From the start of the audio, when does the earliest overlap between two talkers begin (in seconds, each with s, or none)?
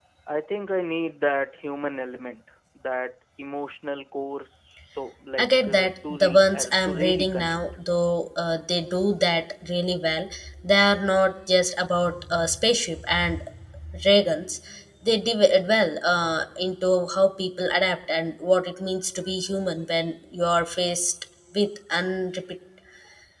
5.4 s